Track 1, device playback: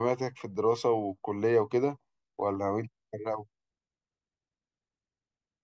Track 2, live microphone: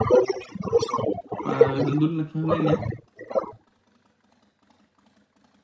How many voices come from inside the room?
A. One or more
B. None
A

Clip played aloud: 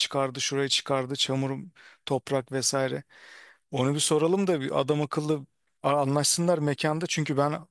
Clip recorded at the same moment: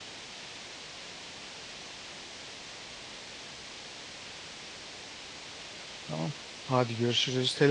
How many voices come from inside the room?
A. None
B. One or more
B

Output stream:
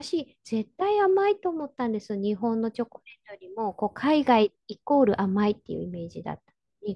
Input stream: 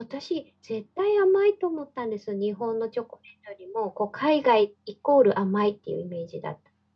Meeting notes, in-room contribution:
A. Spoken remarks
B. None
B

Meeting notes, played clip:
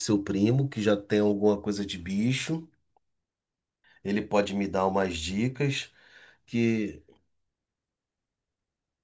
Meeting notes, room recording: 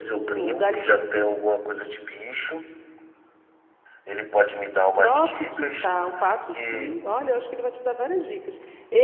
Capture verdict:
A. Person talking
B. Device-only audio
A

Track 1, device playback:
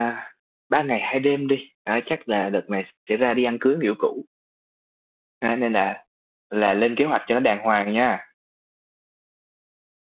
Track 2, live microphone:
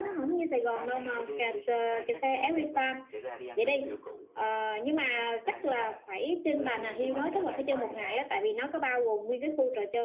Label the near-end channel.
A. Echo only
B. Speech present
B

